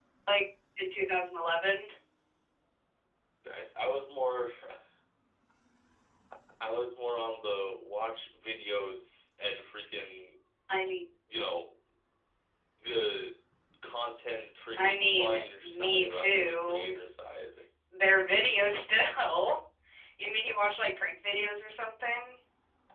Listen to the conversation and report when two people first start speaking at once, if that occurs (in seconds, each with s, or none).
14.8 s